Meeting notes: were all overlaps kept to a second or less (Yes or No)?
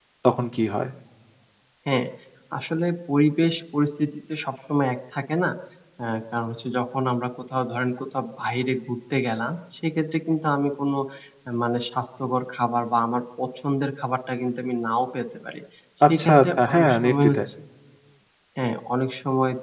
No